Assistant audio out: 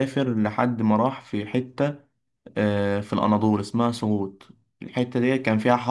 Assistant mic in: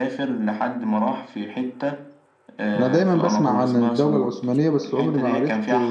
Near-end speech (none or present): present